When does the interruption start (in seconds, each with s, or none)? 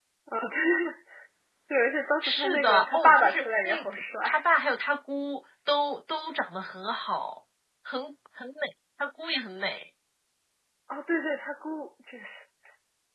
2.2 s